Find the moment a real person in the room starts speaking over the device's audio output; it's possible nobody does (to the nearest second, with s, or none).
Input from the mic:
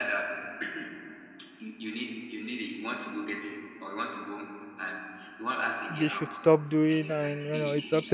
6 s